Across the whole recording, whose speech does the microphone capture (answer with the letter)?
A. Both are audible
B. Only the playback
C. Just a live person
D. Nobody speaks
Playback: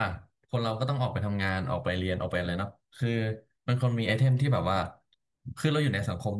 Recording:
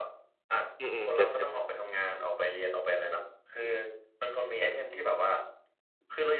A